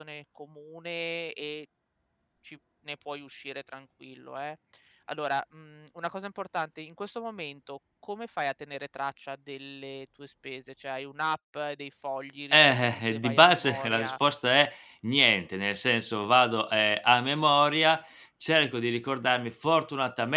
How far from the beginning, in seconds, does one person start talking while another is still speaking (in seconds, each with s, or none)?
12.5 s